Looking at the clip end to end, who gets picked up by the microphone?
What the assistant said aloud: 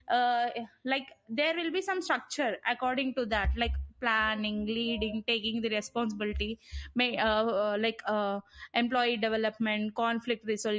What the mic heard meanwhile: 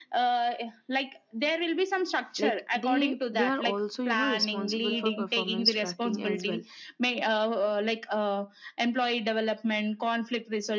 both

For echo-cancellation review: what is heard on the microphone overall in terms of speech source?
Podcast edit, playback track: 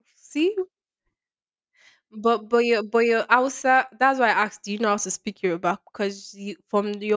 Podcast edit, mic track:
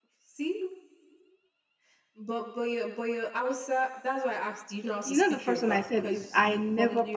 both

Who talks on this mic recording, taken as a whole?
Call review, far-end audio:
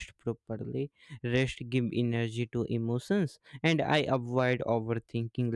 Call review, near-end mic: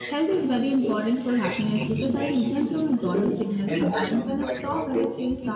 both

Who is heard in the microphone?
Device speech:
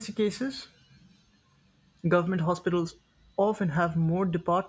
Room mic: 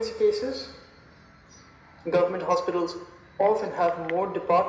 echo only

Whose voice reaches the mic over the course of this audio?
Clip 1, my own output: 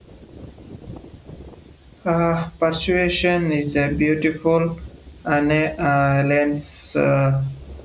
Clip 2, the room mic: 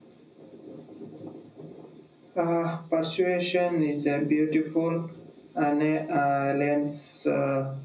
echo only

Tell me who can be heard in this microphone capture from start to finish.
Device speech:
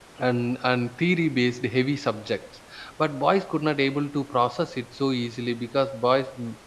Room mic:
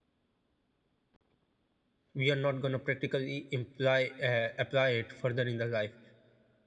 user only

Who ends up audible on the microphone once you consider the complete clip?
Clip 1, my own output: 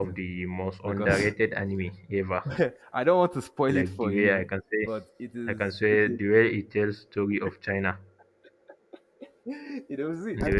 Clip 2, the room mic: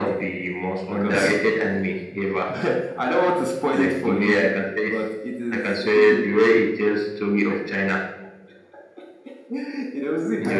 echo only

